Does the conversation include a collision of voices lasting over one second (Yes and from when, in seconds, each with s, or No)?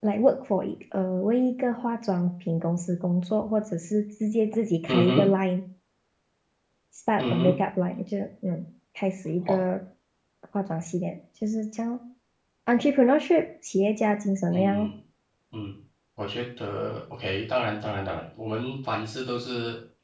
No